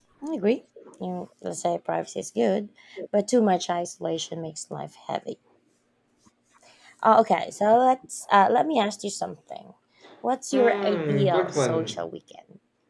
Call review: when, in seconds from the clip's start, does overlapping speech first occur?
10.5 s

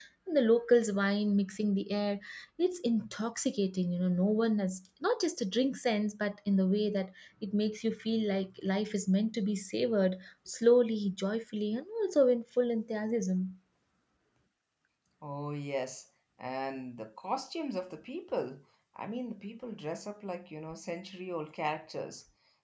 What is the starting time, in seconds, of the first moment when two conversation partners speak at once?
none

